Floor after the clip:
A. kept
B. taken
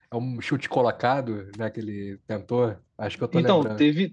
B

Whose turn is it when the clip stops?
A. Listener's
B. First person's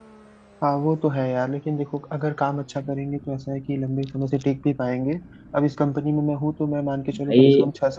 B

